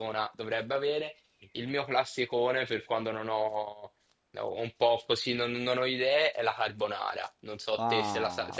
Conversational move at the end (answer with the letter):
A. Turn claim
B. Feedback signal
A